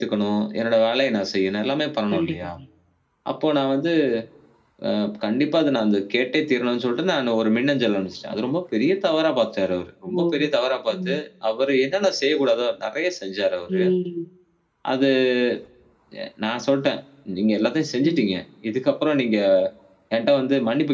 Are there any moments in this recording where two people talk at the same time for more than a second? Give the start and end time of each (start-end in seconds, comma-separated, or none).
none